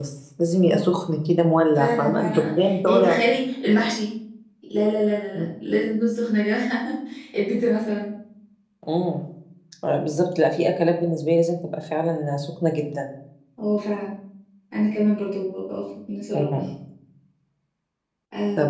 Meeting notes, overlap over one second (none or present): present